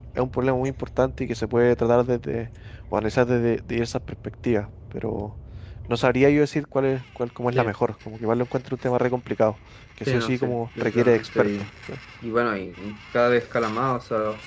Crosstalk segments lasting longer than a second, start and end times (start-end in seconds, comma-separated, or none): 10.1-11.5